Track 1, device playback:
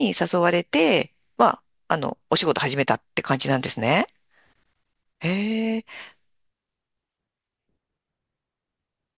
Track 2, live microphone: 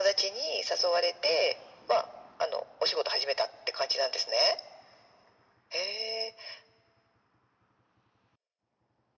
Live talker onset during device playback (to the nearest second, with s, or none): none